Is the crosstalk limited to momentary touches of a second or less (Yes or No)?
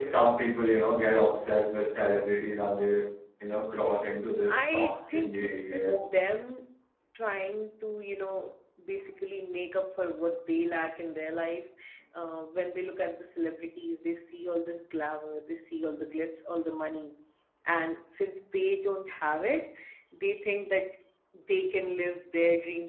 No